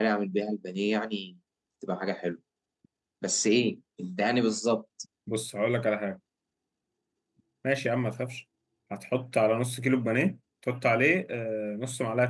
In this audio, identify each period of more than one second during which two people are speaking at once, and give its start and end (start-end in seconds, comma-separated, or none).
none